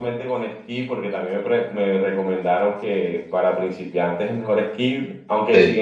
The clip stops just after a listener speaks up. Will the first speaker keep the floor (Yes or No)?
Yes